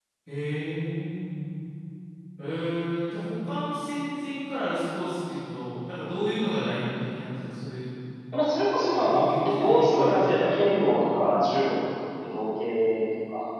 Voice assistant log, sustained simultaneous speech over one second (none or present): present